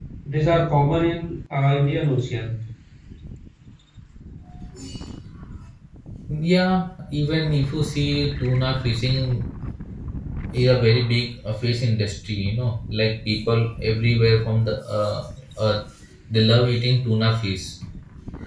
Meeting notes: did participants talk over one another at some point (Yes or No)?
No